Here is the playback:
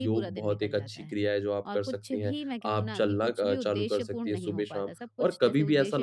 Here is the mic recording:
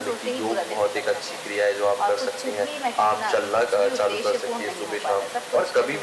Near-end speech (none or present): none